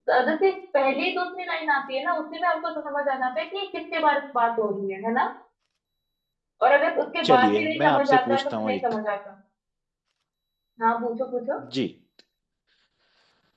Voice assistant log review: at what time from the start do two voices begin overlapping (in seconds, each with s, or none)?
7.2 s